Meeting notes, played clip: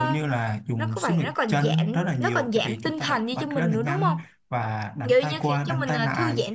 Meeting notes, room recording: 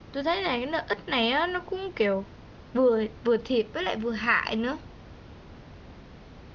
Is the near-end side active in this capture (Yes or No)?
Yes